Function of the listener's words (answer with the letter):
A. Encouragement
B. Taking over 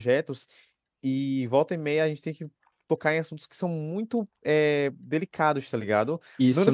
B